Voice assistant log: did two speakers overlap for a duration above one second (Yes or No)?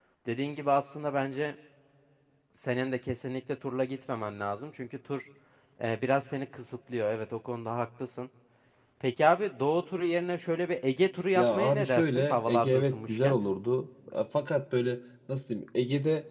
Yes